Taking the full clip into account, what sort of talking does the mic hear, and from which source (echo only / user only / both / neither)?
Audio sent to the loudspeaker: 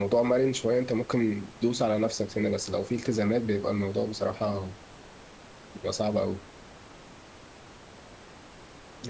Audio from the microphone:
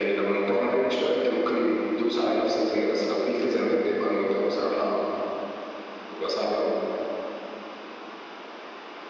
echo only